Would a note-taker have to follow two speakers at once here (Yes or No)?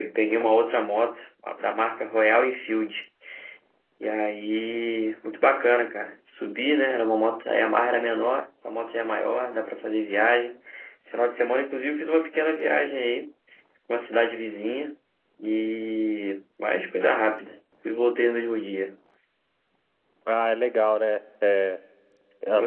No